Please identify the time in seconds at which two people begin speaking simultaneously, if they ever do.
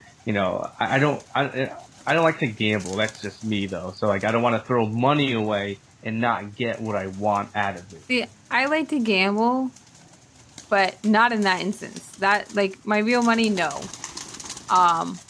none

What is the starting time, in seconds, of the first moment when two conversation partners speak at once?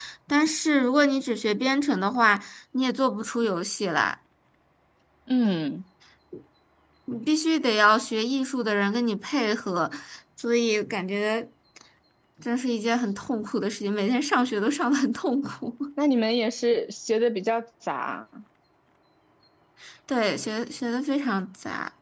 none

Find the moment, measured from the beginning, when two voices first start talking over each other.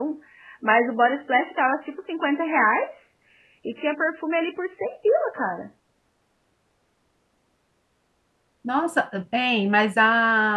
none

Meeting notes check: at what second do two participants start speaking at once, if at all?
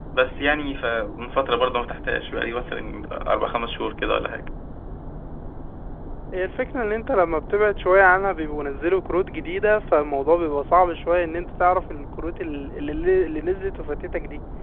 none

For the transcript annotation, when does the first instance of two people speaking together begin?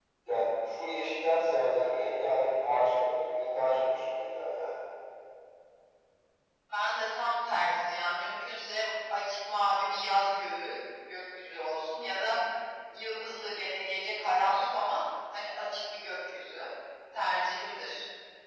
none

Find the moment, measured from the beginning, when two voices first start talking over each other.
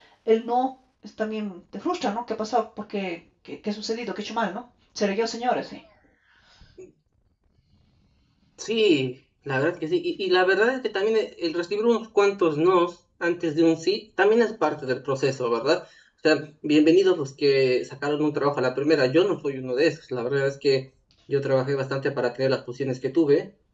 none

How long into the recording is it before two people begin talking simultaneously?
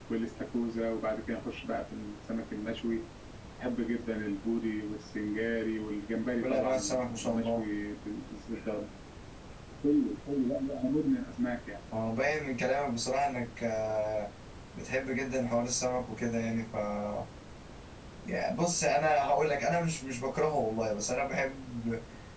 6.4 s

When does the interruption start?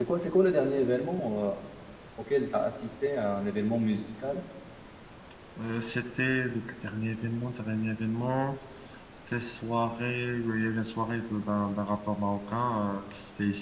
none

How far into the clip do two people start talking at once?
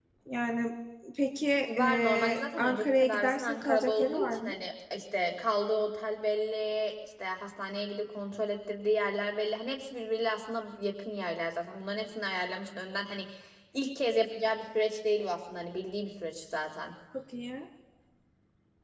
1.8 s

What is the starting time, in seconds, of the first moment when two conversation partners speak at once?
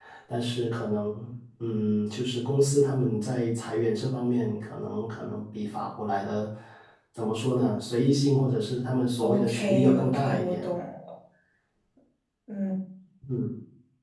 9.2 s

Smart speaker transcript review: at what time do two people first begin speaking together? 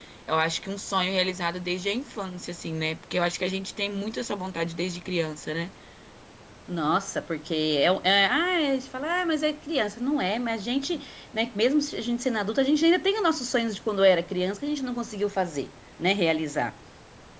none

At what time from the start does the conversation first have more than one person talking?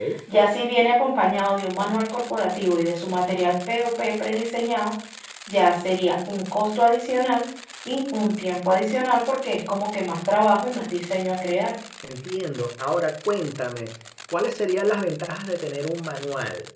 none

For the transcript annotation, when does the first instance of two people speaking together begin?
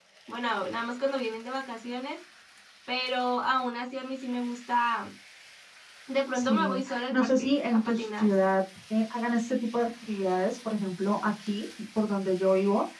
6.3 s

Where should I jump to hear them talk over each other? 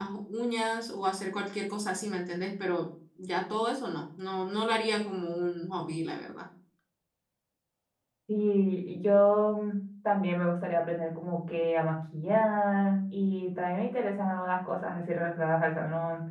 none

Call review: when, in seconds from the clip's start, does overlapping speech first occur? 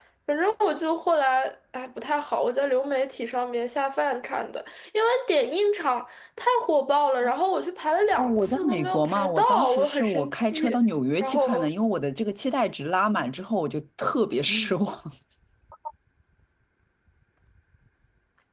8.2 s

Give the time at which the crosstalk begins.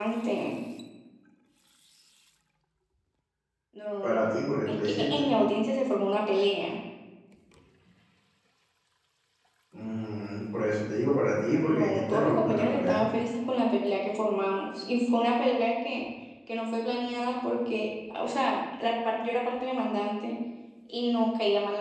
4.0 s

